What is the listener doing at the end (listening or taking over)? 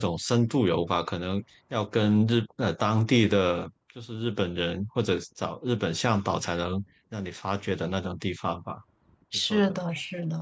taking over